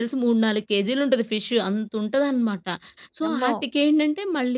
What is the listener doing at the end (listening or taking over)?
listening